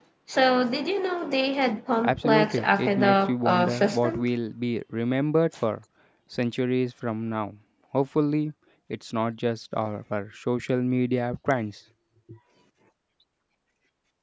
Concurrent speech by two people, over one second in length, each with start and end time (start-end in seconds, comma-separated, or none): 2.0-4.2